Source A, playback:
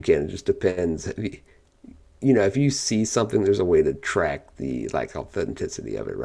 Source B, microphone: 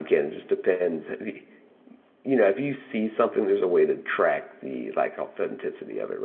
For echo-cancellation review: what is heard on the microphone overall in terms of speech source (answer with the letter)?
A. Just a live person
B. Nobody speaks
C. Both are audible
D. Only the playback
D